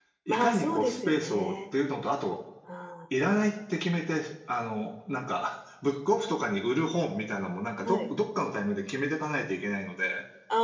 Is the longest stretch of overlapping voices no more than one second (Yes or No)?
No